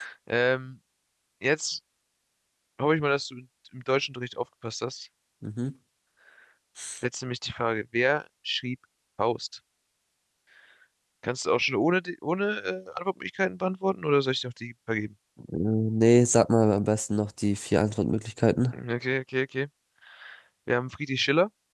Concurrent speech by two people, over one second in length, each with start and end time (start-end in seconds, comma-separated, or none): none